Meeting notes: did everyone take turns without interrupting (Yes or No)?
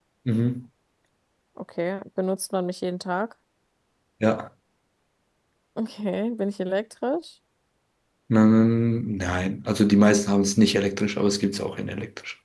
Yes